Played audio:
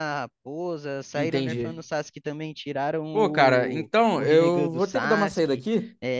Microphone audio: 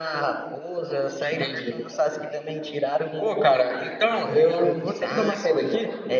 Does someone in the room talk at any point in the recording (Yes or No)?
No